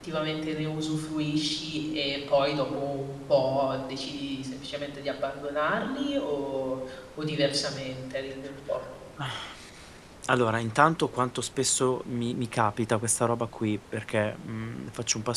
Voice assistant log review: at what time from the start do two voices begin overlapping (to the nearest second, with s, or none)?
none